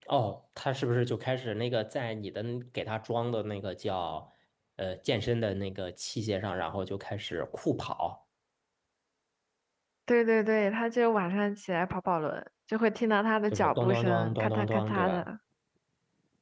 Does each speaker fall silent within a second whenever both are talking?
No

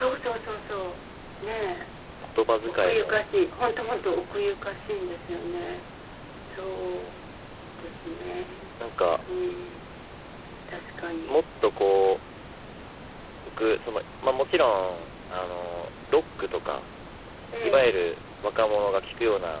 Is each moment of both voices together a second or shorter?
Yes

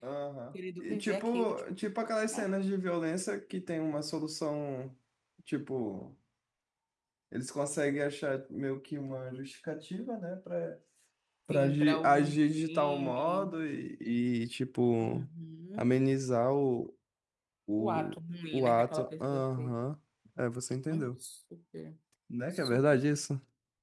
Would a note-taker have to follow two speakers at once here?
Yes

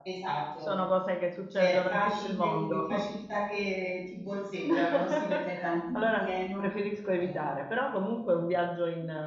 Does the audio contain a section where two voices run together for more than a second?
Yes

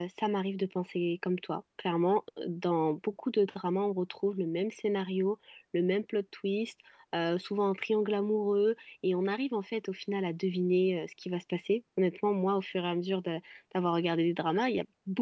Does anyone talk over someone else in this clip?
No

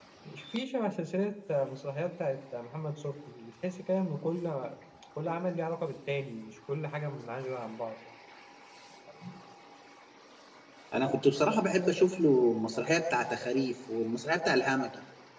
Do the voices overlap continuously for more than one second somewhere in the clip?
No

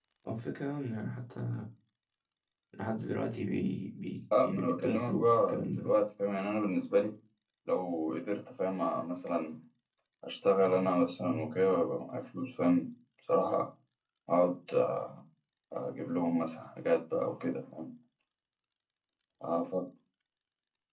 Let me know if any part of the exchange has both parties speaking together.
Yes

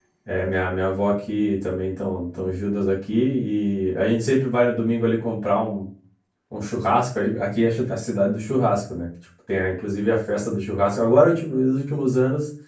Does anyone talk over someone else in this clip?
No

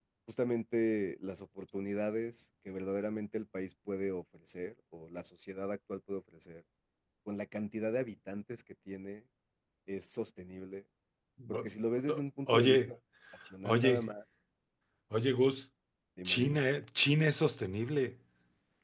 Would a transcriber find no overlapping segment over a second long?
Yes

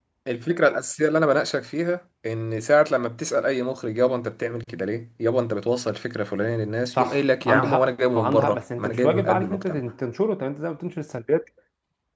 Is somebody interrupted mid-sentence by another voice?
Yes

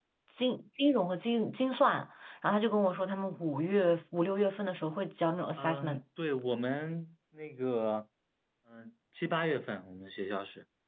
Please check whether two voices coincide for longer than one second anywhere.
No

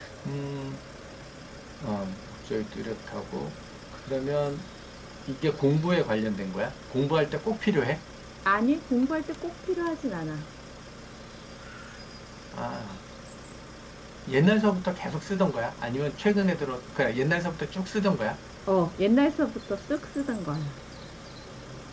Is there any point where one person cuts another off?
No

